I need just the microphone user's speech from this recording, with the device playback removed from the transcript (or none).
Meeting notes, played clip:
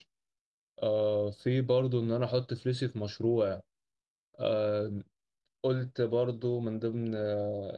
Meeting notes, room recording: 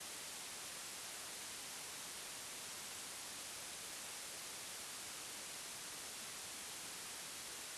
none